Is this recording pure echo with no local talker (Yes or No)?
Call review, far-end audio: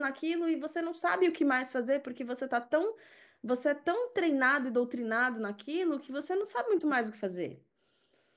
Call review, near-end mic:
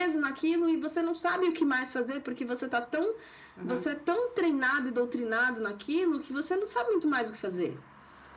No